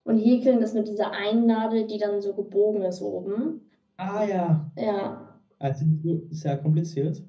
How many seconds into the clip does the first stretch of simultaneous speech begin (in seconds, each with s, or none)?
none